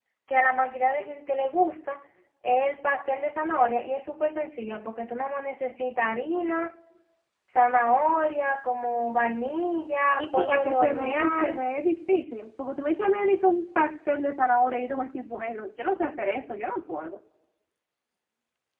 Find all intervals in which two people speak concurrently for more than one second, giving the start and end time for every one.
10.2-11.6

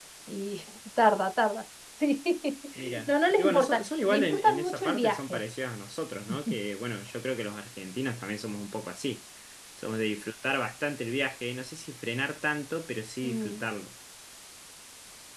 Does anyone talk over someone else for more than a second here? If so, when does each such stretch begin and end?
3.1-5.4

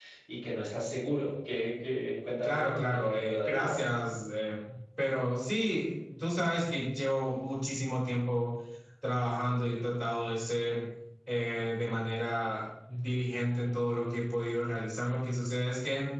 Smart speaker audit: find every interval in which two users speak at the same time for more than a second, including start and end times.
2.4-3.8

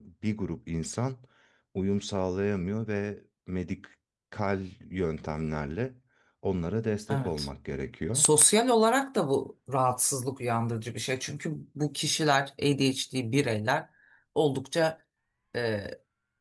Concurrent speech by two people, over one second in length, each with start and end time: none

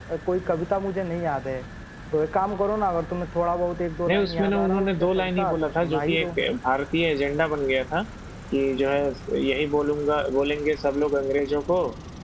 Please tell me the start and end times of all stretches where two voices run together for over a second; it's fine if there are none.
4.1-6.3

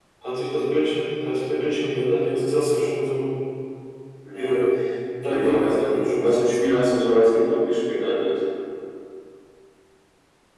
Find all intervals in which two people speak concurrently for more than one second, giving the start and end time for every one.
5.3-6.5

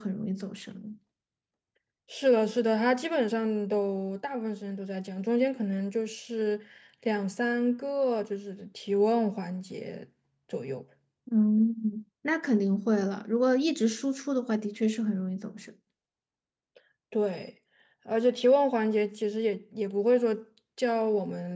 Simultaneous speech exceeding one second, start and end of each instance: none

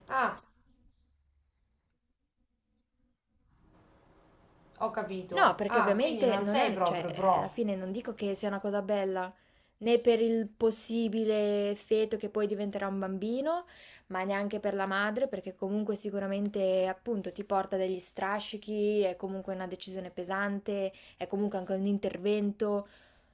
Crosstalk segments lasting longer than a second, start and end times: 5.3-7.5

